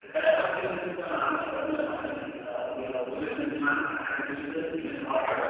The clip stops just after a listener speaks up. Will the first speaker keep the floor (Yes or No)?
No